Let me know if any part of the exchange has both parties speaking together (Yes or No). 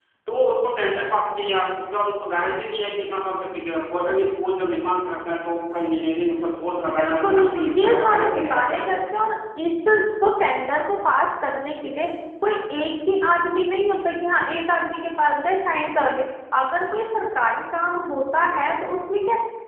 Yes